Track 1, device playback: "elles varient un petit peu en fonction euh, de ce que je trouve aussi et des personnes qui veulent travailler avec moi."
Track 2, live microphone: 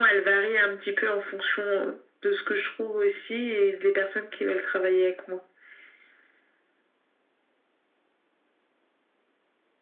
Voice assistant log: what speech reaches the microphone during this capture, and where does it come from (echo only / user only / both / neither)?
echo only